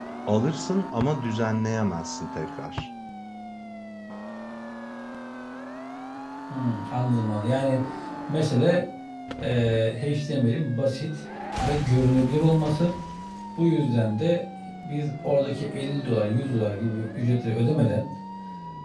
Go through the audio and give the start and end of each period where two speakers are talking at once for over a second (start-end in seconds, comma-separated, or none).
none